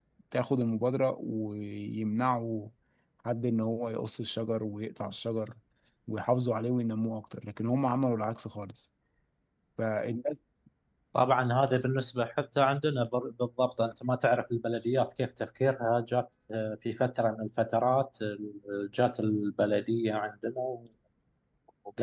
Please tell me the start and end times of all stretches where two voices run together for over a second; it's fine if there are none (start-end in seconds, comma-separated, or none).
none